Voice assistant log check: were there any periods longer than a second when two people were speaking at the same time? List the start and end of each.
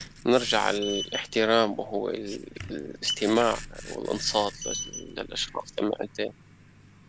none

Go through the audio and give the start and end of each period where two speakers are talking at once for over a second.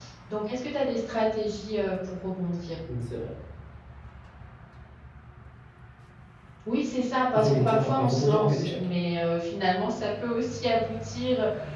7.4-8.8

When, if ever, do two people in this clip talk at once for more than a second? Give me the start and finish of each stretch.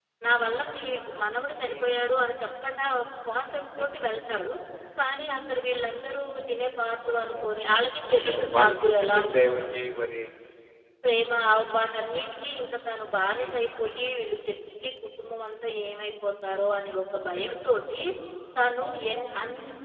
8.1-9.6

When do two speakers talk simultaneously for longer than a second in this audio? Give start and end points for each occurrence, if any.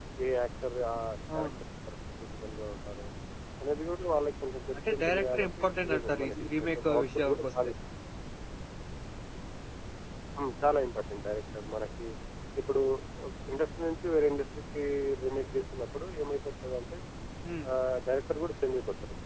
4.8-7.4

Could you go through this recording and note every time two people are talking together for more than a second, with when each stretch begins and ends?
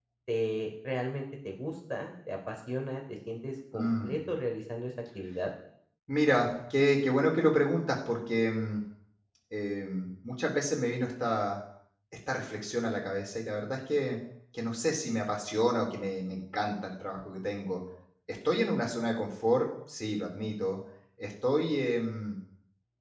none

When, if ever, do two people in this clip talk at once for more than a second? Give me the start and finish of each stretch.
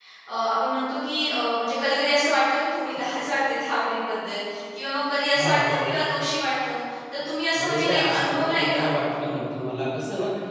7.6-8.9

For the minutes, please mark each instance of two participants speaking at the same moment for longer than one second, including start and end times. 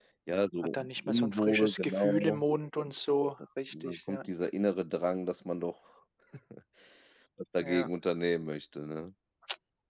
0.7-2.4

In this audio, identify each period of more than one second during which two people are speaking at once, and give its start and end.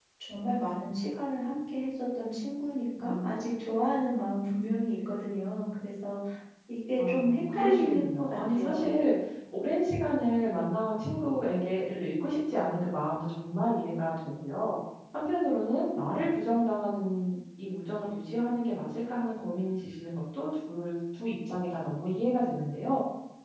7.0-8.9

